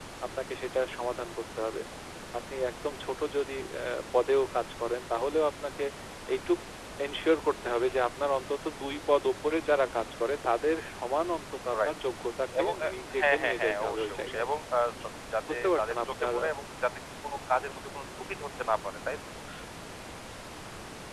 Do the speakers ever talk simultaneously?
Yes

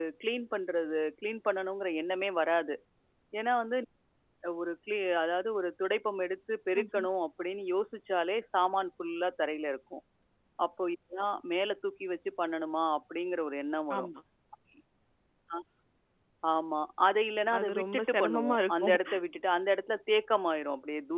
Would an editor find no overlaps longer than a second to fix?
No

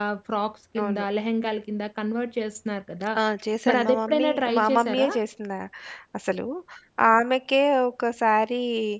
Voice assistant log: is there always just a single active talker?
No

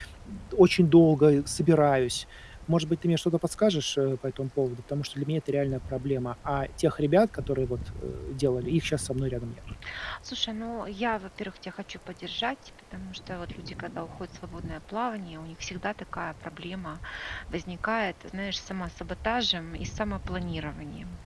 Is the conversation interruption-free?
Yes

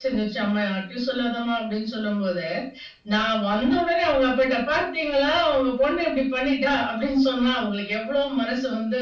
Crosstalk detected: No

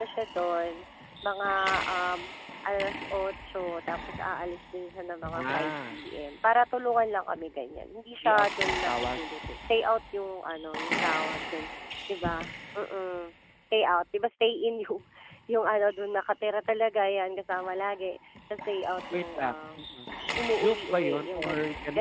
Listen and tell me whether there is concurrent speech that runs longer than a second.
Yes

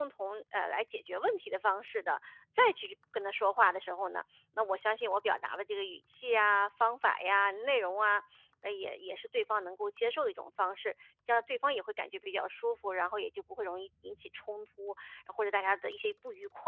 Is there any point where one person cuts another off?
No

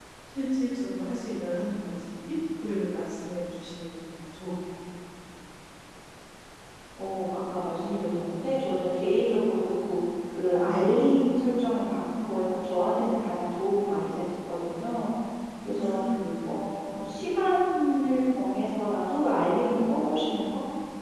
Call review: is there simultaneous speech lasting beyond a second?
No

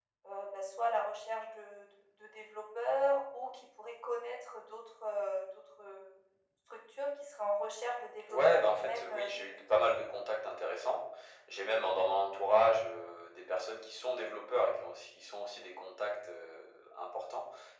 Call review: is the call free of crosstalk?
No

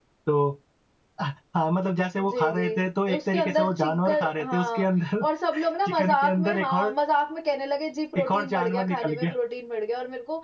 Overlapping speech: Yes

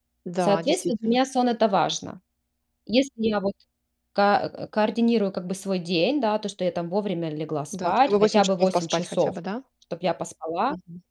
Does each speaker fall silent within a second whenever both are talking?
No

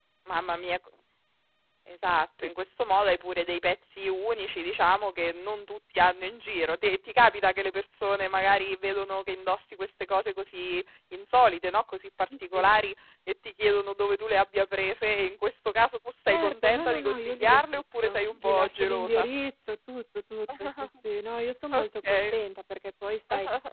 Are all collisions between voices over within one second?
No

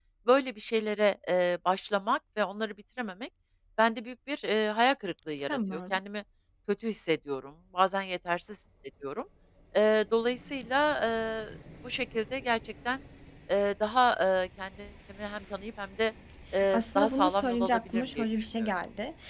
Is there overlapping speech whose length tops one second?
Yes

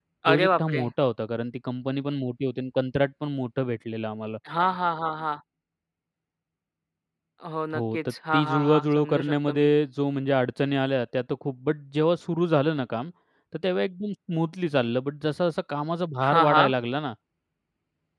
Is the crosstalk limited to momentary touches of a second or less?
No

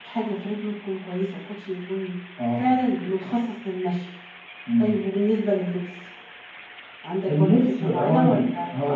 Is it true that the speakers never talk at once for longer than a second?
No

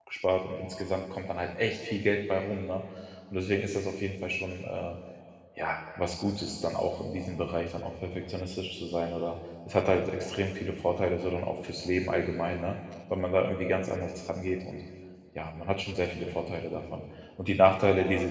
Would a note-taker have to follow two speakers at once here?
No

